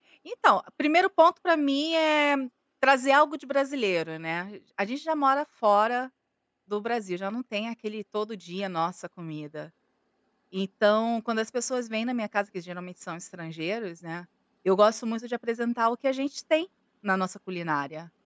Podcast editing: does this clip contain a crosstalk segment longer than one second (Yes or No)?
No